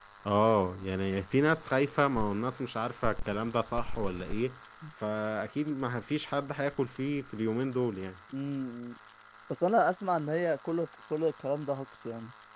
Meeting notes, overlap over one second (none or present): none